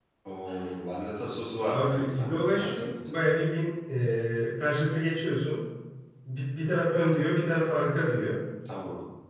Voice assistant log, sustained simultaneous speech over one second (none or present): present